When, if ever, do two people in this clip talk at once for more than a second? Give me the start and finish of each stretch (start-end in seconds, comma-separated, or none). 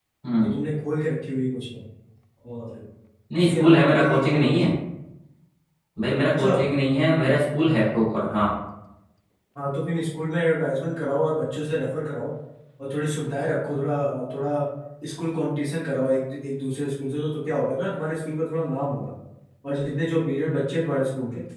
3.4-4.7